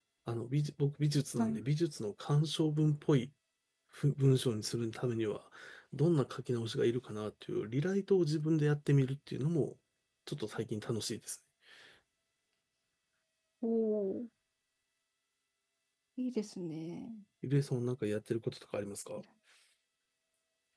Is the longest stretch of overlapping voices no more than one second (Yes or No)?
Yes